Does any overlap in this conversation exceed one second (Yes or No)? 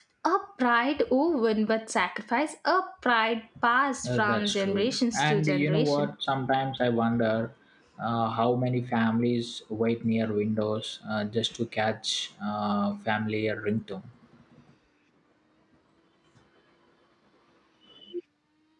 Yes